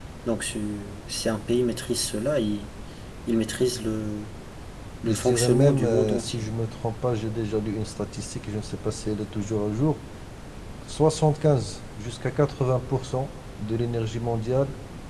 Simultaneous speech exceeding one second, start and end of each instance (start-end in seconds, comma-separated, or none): 5.0-6.5